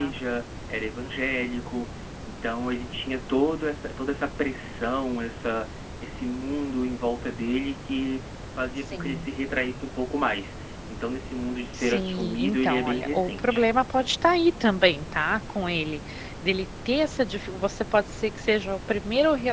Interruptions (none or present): present